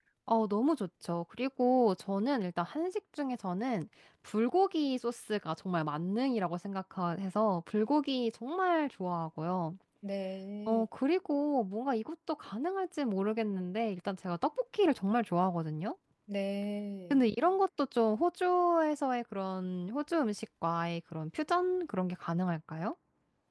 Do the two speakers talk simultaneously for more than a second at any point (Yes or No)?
No